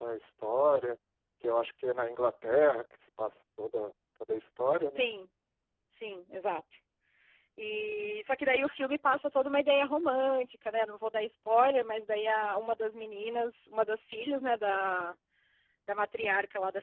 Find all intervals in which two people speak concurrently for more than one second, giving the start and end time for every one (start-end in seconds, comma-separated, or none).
none